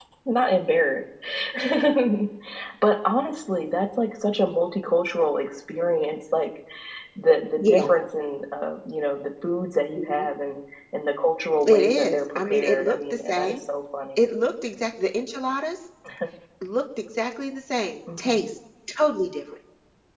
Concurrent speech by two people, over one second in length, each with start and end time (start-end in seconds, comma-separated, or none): 11.7-13.6